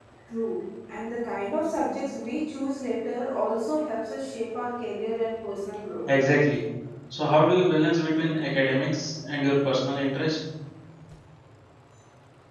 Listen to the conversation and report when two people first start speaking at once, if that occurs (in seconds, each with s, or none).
none